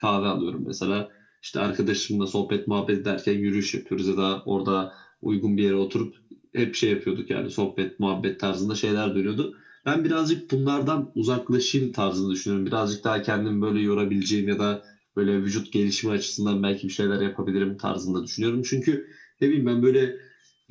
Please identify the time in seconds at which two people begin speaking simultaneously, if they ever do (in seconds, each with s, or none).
none